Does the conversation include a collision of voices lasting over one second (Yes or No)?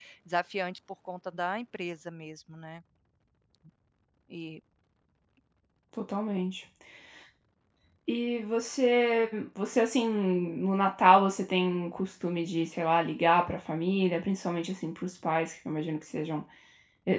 No